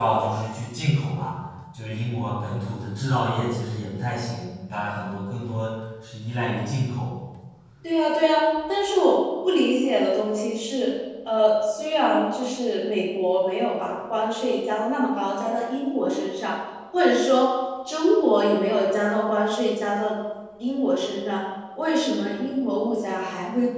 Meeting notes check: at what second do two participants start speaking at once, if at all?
none

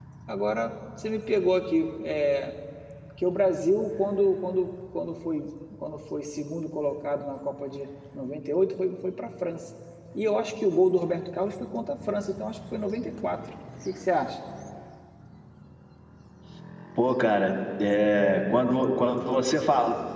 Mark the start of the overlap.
none

